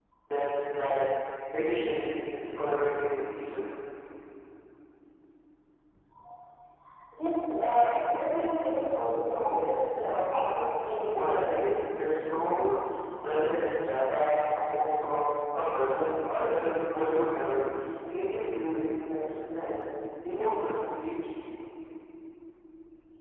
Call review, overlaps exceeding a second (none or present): none